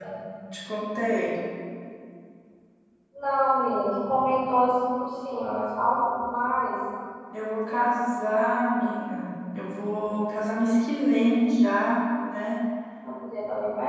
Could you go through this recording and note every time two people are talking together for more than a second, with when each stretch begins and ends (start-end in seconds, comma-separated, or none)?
none